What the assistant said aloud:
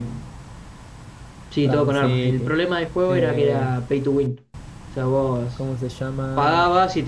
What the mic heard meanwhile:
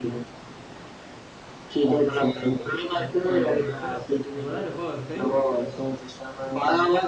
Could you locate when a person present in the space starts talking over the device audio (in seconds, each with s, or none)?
1.9 s